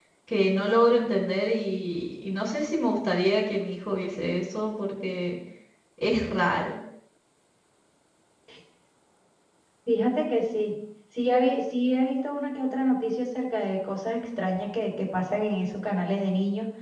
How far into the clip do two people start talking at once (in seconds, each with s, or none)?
none